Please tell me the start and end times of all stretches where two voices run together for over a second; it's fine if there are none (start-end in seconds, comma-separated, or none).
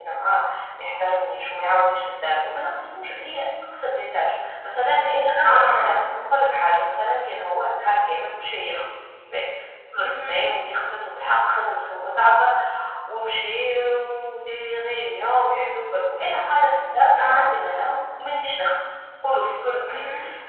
none